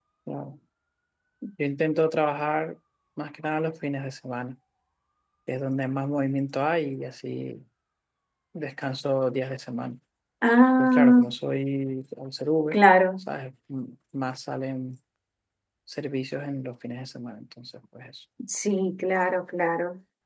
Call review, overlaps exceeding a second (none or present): none